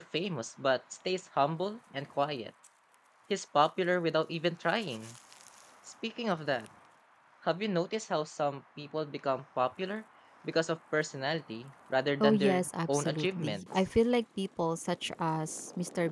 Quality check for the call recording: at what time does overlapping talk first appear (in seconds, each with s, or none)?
12.2 s